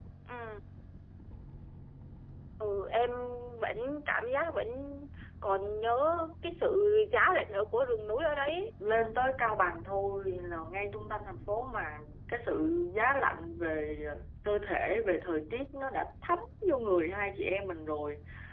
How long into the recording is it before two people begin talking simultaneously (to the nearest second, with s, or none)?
none